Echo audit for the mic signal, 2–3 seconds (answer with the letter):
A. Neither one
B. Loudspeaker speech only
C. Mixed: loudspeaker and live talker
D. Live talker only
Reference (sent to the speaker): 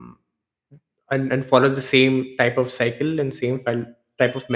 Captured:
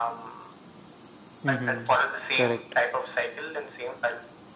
C